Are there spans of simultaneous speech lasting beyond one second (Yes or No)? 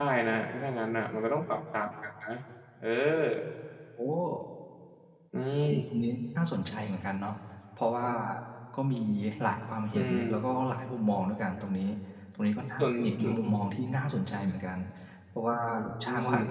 No